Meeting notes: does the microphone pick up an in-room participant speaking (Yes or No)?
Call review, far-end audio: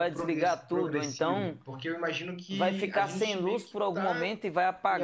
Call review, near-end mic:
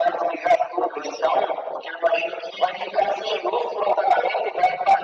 No